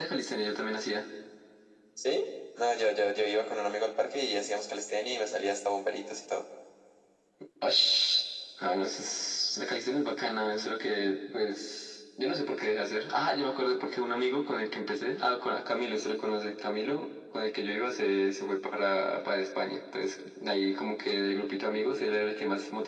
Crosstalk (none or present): none